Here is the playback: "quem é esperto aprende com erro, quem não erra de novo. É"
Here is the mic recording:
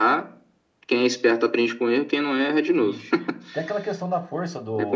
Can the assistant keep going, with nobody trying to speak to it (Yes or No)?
No